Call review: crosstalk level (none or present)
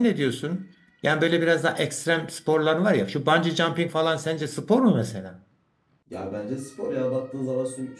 none